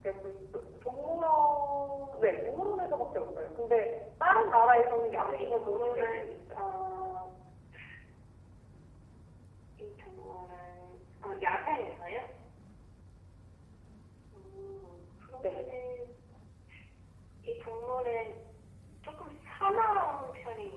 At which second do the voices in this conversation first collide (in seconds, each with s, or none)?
5.1 s